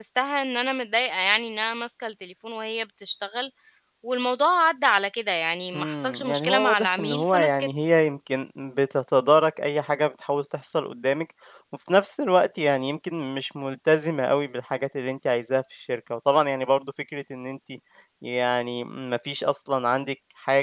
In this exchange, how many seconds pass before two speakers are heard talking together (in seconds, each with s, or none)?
5.7 s